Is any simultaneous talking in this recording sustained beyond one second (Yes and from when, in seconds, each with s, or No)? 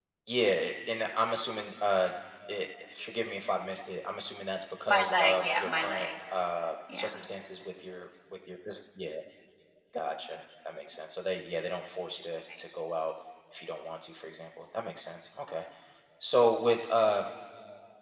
Yes, from 4.9 s